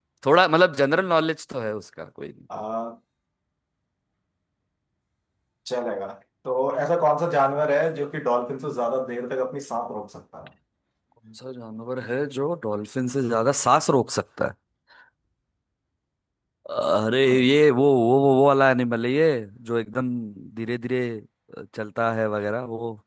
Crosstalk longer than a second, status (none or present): none